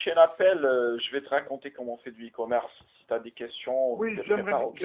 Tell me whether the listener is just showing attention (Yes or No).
No